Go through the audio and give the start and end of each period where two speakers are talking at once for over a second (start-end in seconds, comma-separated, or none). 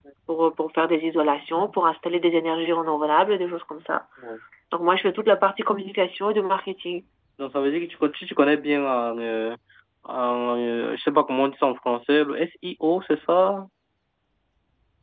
none